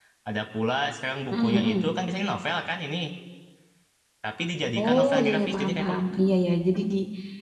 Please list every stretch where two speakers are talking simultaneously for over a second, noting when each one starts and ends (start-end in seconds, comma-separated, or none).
4.8-6.0